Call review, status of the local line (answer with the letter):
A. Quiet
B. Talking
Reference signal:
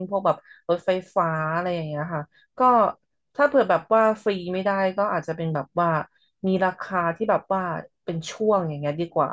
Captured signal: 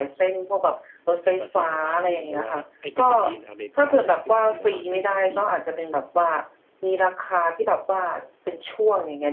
B